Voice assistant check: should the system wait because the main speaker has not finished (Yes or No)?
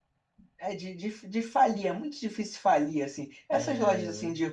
Yes